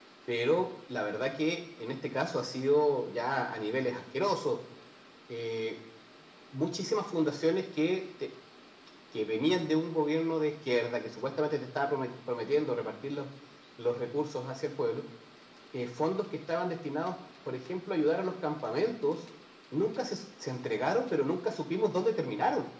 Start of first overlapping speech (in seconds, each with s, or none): none